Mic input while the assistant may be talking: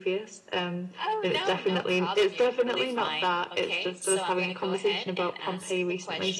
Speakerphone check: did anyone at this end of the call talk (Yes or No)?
No